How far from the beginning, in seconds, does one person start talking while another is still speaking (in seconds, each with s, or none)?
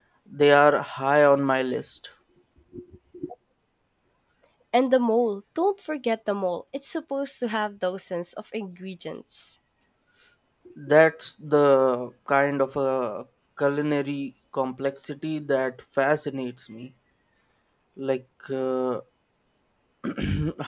none